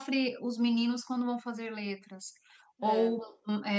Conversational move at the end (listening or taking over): listening